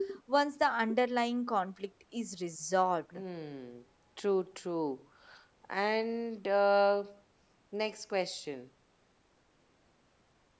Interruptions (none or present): none